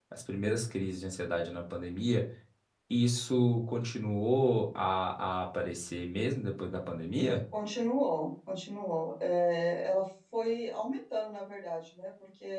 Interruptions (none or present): none